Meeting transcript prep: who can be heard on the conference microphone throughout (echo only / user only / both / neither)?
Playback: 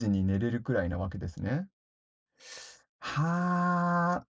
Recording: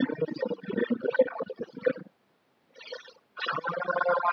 echo only